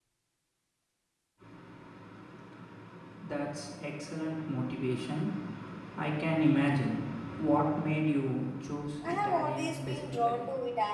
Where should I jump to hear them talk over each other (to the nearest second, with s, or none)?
9 s